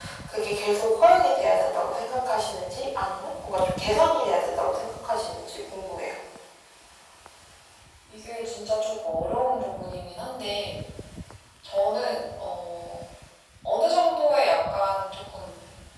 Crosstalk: none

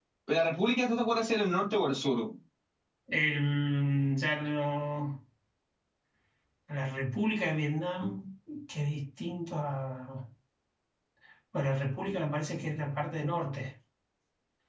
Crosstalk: none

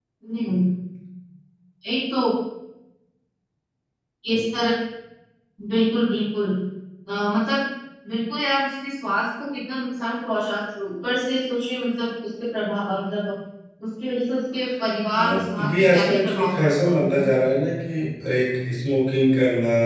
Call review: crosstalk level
present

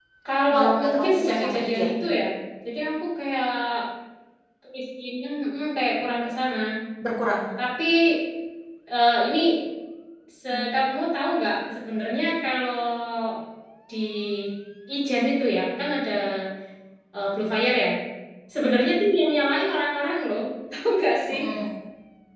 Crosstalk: present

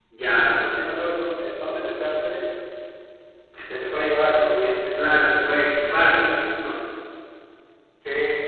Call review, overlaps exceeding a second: none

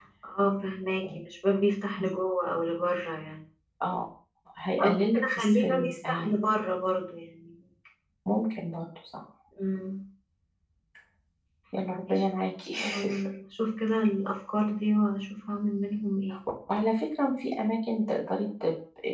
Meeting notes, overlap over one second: present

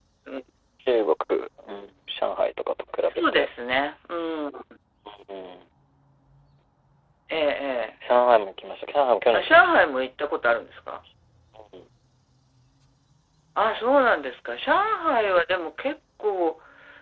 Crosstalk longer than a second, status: none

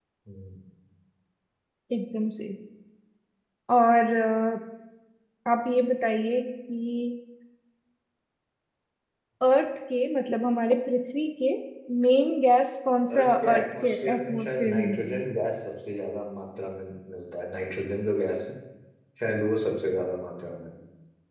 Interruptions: present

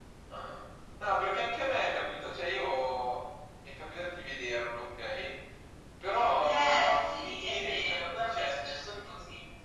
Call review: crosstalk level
present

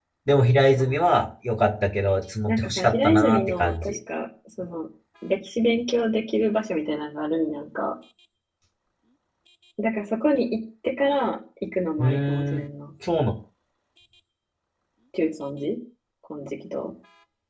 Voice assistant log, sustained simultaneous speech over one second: present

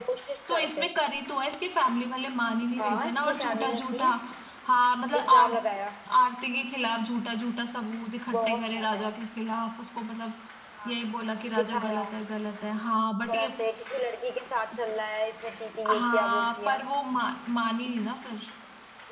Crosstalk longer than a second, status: present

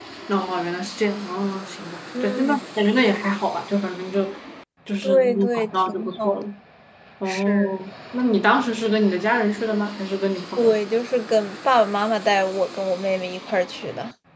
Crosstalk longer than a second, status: present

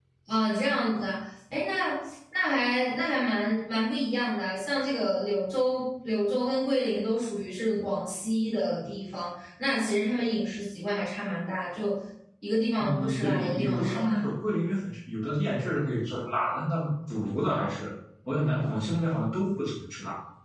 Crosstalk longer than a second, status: present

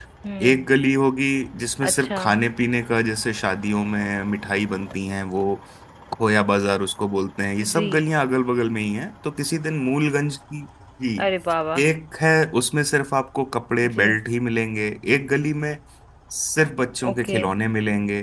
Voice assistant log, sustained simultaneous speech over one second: none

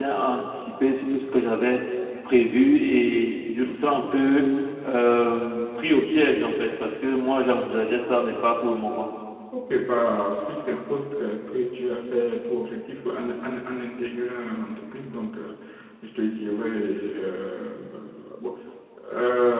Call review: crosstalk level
none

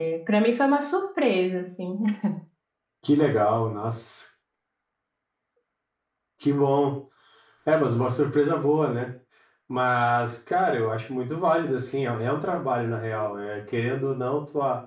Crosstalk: none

